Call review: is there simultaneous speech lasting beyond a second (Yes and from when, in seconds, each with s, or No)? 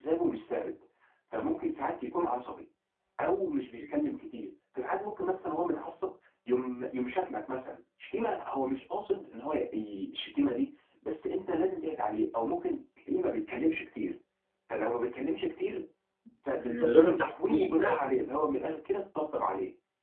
Yes, from 16.6 s